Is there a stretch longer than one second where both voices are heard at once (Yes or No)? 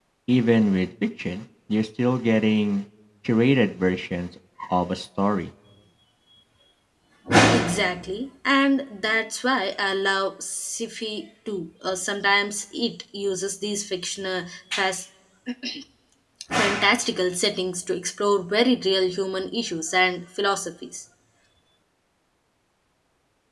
No